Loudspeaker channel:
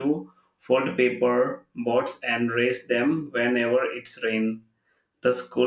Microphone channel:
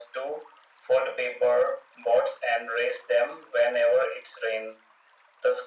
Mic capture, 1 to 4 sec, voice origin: echo only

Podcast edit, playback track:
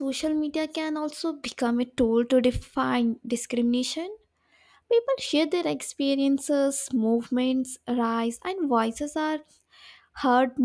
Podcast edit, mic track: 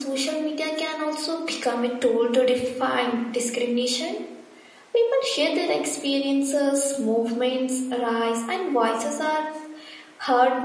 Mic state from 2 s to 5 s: echo only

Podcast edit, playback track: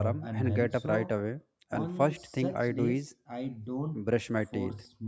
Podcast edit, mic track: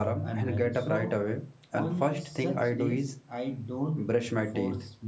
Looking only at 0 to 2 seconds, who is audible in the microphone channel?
echo only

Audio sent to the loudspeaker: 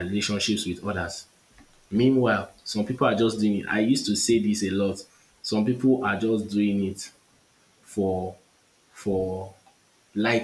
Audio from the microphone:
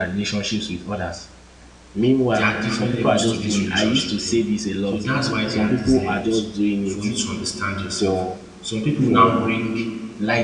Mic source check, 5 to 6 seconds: both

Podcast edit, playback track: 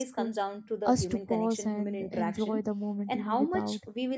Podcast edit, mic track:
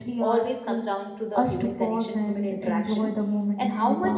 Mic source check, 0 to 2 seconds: echo only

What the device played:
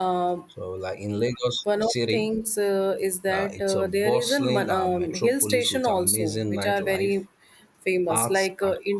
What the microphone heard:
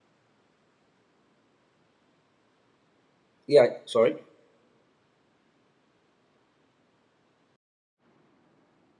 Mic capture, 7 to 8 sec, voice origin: neither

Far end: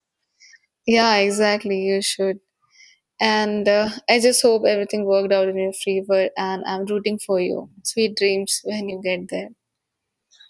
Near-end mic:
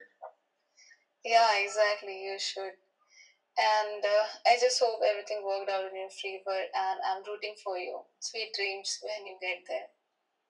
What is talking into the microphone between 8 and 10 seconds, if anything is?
echo only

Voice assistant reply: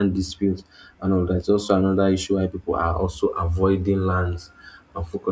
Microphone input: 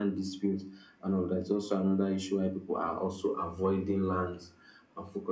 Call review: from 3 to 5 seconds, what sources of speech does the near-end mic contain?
echo only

